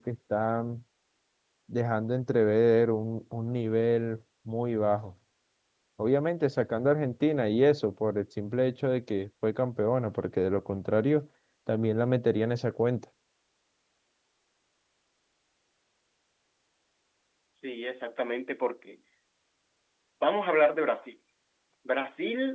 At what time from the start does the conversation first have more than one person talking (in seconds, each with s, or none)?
none